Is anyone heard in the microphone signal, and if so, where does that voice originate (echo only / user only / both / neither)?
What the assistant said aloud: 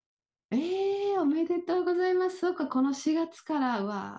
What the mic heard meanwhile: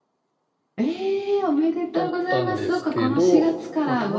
both